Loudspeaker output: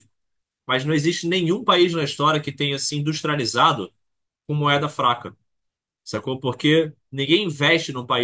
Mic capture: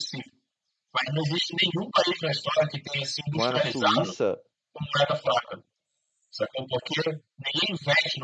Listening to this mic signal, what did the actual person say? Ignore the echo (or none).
Morar na Suíça